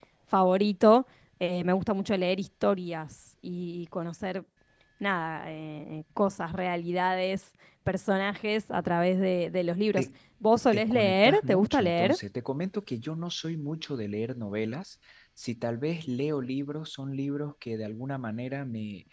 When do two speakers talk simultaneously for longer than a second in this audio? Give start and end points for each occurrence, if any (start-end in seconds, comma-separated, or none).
10.7-12.2